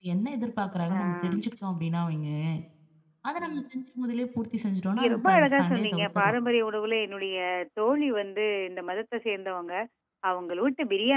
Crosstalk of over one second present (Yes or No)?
Yes